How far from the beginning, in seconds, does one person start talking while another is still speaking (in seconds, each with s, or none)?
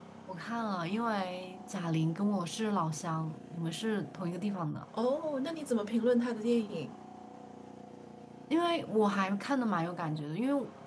none